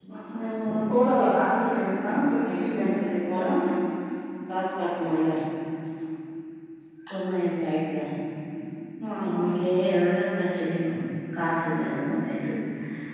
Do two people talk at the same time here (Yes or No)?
Yes